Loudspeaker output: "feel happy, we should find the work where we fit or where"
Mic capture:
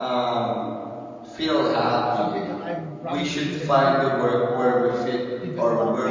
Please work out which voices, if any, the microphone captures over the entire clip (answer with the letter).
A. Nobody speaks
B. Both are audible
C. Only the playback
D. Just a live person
B